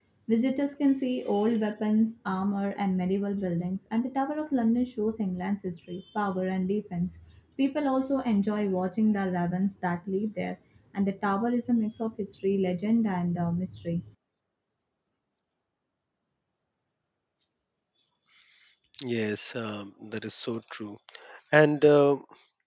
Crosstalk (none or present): none